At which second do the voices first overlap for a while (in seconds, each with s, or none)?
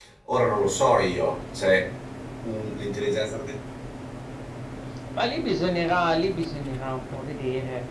none